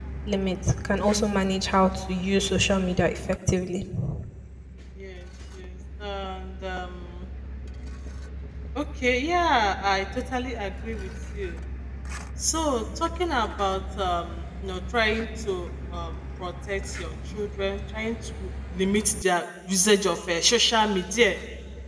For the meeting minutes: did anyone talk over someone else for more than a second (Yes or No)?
No